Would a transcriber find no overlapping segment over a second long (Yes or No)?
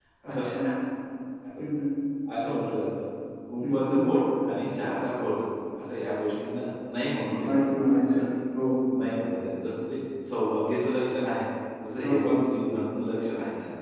Yes